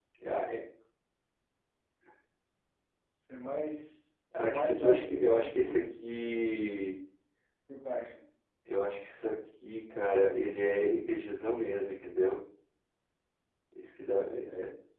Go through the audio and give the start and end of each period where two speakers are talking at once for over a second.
4.3-5.8

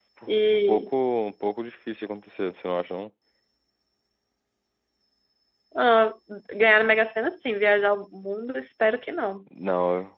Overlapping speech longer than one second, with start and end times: none

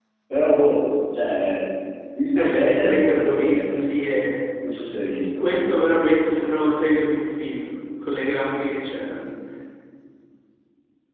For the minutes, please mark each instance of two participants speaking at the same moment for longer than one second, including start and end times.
2.4-3.8

